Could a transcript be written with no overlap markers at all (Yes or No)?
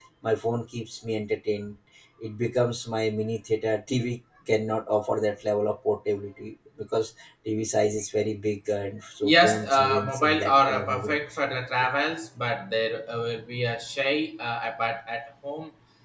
No